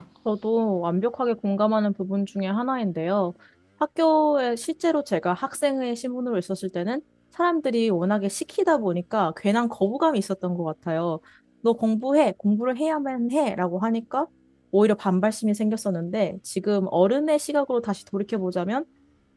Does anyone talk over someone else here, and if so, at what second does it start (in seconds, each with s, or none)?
none